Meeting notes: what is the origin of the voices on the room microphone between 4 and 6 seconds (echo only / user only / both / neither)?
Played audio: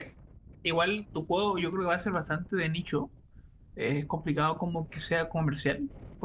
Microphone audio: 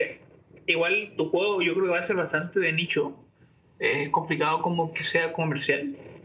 echo only